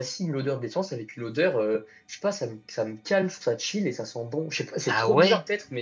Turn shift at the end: No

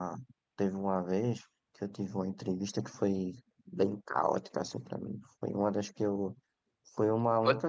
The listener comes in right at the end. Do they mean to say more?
No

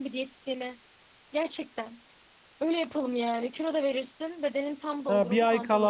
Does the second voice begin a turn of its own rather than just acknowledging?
Yes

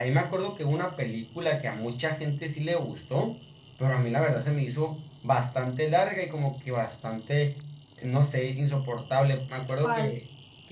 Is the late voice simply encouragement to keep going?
Yes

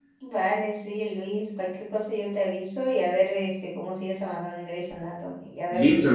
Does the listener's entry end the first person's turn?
Yes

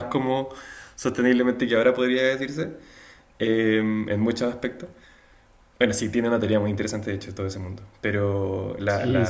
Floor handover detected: Yes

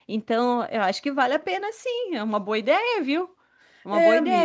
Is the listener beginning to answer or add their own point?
Yes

